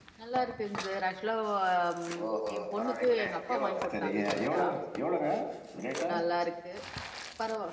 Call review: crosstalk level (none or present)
present